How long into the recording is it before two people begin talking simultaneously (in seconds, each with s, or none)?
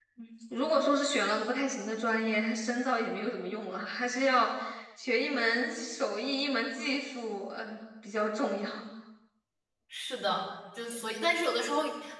none